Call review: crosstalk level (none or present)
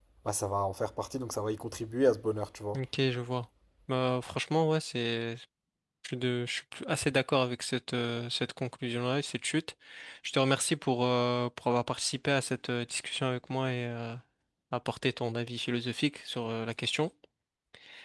none